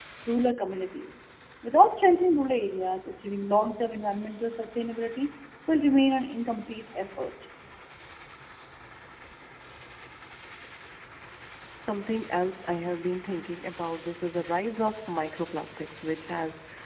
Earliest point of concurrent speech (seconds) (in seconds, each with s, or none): none